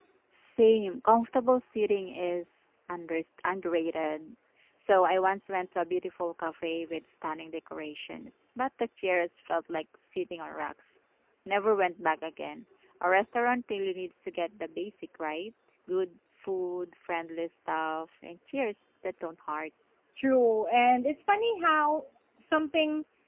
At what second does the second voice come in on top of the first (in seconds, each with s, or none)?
none